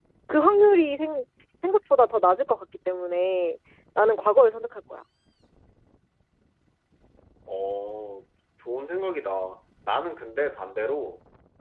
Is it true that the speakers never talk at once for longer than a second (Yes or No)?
Yes